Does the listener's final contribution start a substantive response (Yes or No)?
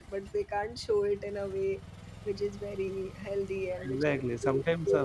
Yes